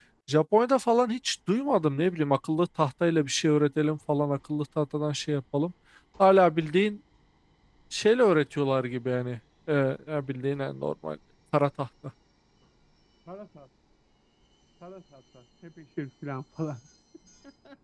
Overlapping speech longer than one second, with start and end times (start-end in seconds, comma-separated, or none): none